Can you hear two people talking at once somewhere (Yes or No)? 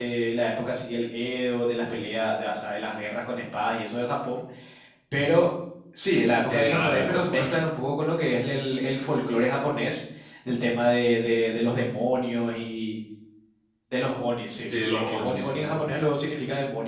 Yes